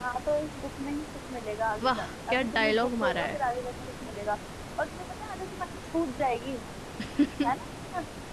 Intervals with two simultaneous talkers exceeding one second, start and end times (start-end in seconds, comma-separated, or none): 1.8-3.4